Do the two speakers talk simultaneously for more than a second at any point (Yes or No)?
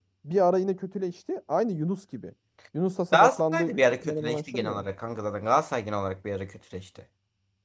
Yes